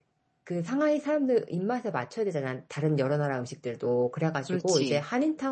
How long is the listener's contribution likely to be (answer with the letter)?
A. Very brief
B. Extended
A